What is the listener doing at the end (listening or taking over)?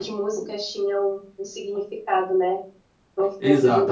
taking over